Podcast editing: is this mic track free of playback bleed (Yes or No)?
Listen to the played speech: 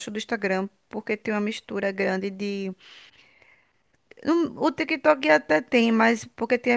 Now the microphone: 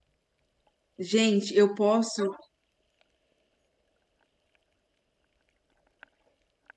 Yes